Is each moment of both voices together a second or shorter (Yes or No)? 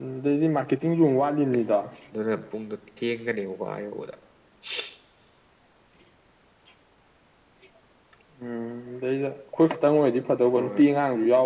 Yes